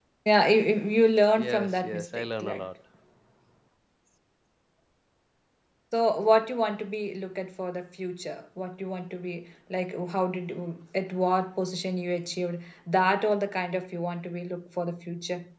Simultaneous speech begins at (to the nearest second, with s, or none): 1 s